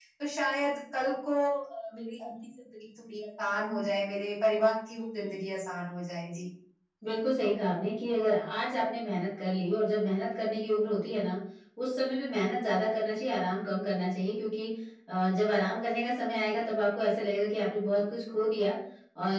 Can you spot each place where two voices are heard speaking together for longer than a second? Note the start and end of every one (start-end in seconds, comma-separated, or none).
none